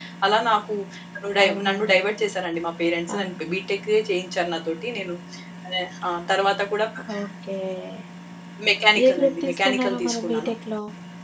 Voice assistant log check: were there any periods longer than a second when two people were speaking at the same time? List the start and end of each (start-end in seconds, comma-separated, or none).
9.0-10.5